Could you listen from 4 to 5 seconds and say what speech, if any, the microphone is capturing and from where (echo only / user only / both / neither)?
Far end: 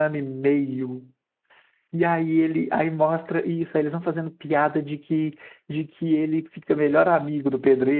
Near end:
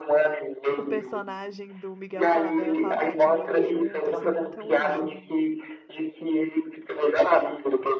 both